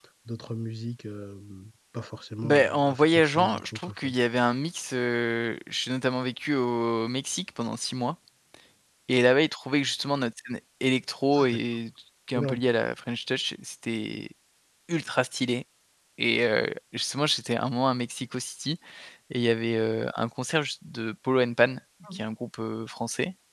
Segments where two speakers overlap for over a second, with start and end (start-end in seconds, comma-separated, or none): 2.4-4.1